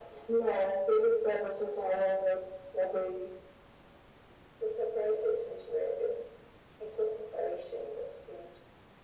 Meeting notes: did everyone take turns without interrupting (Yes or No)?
Yes